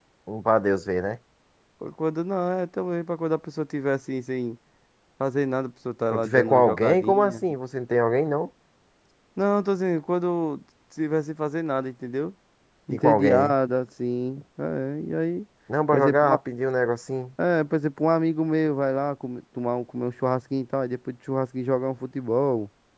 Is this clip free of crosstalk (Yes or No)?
No